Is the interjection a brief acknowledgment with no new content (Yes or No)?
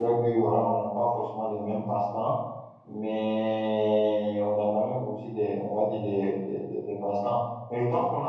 Yes